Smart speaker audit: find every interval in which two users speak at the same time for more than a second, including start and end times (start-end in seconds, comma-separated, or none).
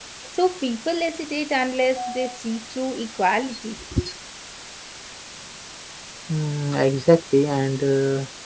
none